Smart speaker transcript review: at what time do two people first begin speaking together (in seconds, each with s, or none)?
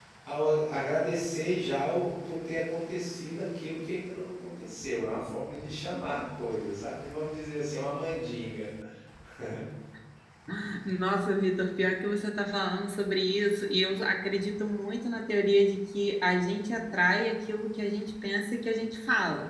none